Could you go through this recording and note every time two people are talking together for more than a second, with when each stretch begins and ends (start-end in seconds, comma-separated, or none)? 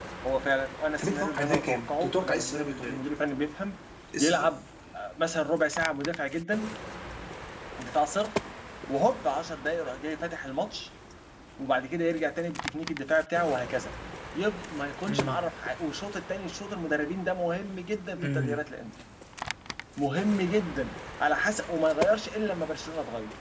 1.0-3.0